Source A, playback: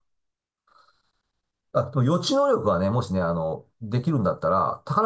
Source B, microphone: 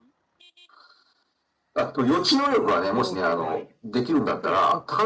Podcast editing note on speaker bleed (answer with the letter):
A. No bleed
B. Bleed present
B